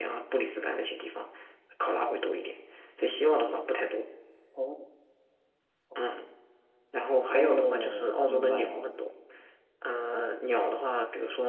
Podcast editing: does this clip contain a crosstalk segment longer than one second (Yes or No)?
Yes